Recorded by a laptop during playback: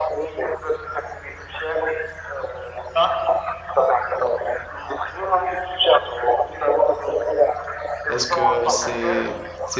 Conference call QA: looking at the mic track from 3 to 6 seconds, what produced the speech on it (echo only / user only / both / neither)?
echo only